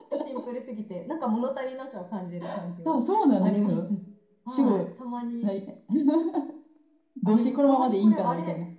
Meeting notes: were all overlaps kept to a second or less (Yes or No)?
No